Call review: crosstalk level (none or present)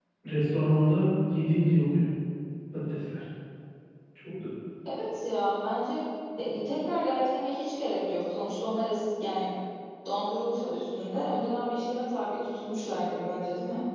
none